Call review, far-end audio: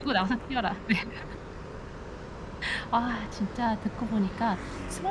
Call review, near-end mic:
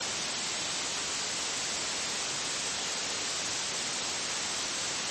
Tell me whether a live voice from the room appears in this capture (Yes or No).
No